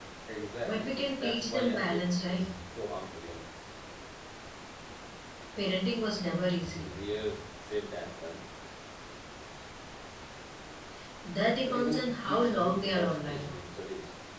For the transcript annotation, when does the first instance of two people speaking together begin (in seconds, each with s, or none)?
0.6 s